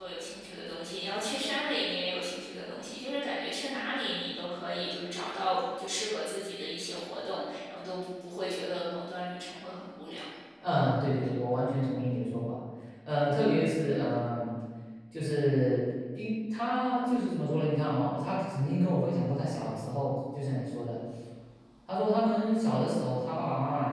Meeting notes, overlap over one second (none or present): none